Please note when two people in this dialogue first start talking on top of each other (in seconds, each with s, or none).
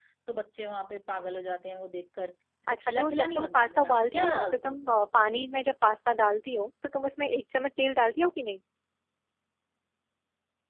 2.7 s